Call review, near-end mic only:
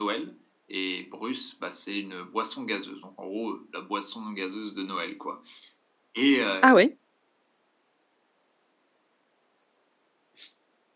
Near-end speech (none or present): present